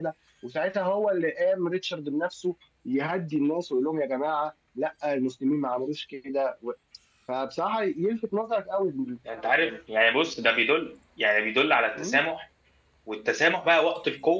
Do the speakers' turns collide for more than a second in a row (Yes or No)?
No